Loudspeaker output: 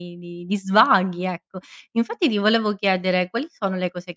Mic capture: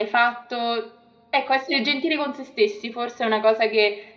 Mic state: user only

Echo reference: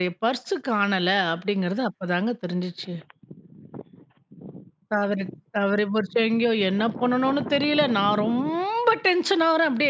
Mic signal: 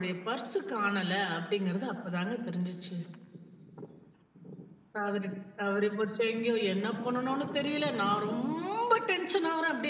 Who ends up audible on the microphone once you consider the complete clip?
echo only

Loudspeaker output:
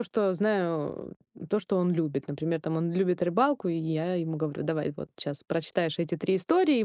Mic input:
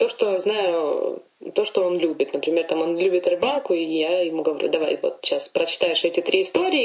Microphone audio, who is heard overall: echo only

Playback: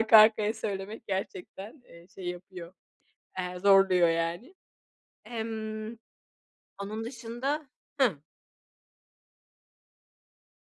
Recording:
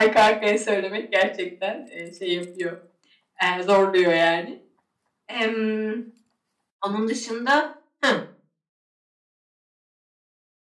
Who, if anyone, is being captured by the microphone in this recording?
echo only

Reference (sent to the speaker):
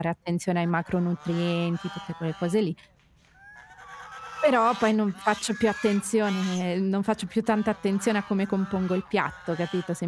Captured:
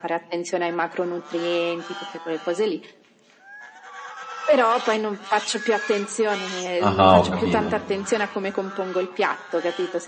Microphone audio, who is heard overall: both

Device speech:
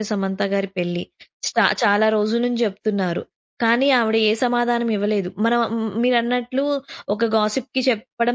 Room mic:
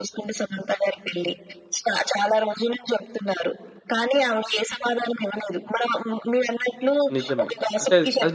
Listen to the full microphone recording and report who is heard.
both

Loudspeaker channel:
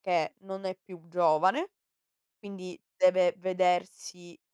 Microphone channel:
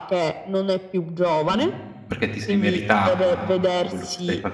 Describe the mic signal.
both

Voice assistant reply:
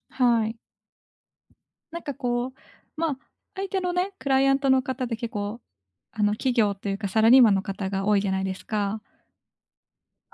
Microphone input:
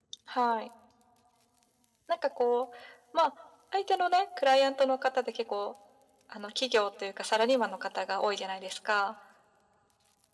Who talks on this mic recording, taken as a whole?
echo only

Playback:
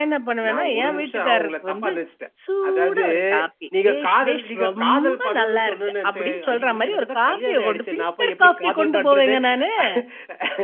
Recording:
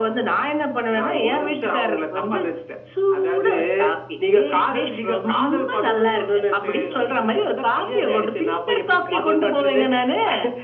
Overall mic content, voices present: echo only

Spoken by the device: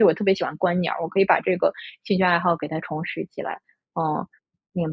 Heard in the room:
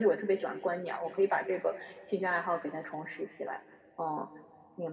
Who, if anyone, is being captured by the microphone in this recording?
echo only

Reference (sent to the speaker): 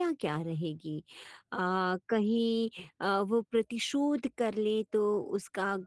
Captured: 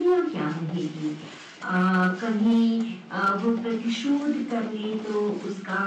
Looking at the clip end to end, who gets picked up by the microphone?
echo only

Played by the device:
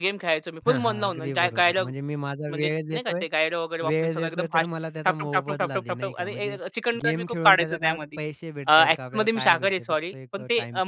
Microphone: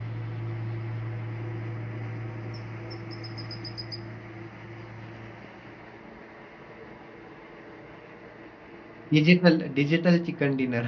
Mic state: user only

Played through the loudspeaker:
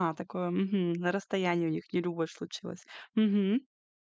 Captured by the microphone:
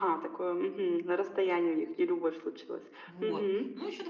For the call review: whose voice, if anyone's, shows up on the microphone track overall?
both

